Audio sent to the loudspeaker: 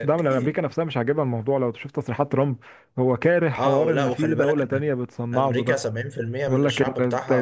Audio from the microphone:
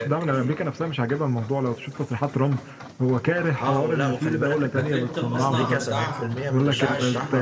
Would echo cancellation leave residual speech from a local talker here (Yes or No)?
Yes